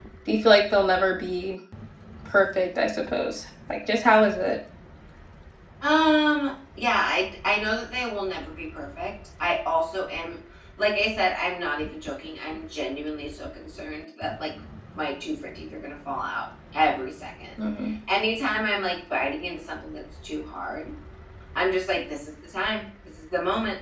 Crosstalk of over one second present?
No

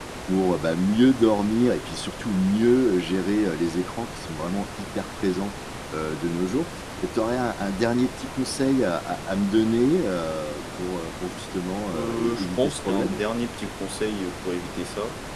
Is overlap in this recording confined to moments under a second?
No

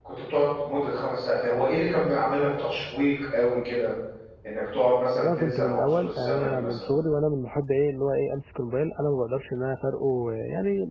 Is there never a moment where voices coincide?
No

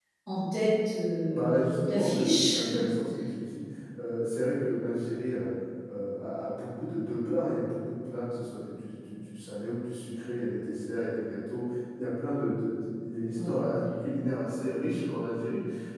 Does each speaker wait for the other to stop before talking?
No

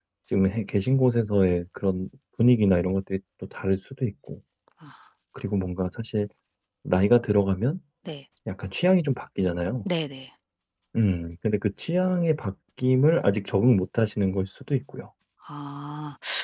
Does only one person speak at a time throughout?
Yes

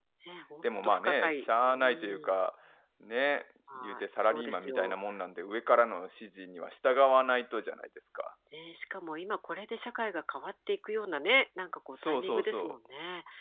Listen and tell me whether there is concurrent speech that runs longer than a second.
Yes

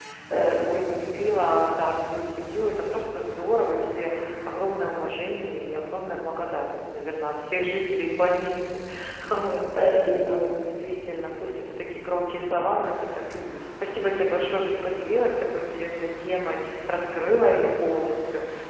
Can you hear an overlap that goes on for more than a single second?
No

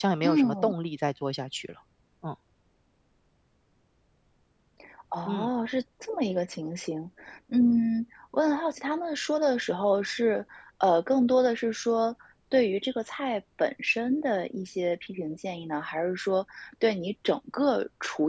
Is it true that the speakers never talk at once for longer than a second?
Yes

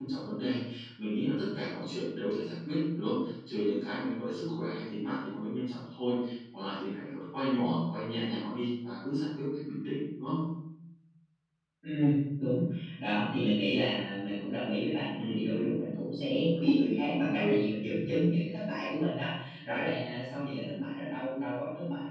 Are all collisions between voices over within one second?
Yes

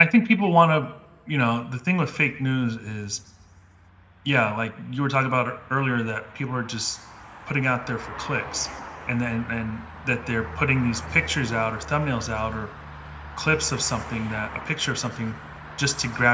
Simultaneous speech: No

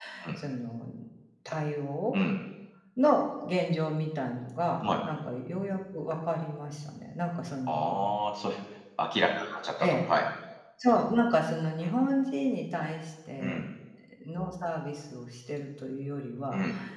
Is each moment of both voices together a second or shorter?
Yes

